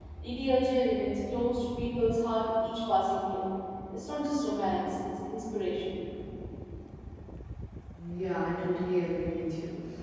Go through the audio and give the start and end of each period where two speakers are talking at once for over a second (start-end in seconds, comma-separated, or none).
none